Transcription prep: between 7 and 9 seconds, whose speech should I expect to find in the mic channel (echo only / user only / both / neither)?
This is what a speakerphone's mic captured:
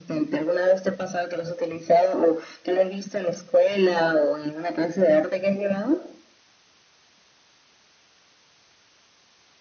neither